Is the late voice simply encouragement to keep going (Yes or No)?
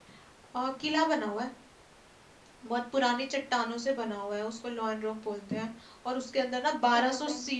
Yes